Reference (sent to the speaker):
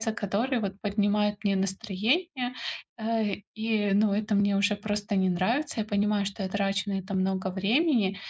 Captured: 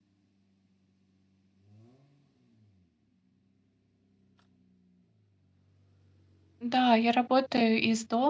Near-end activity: present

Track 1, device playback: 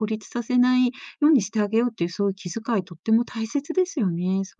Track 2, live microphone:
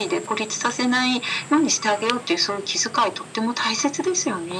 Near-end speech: none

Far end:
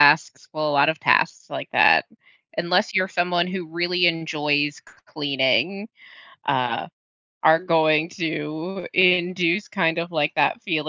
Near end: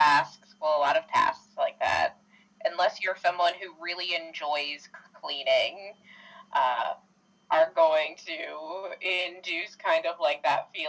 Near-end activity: none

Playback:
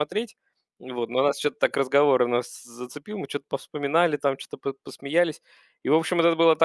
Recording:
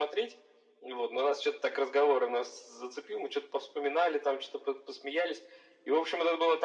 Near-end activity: none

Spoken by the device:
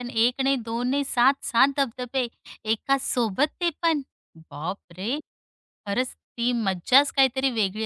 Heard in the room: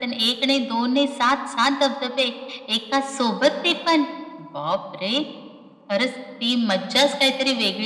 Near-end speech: none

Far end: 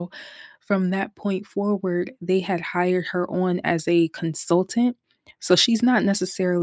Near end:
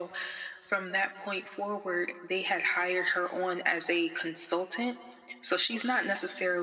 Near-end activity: none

